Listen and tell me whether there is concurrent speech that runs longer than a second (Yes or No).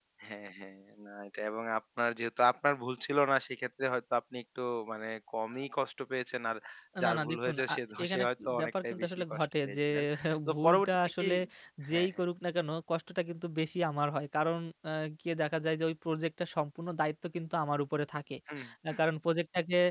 Yes